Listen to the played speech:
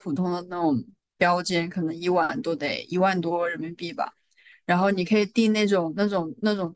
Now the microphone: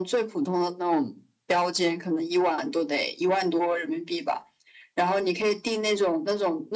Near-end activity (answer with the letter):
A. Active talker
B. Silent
B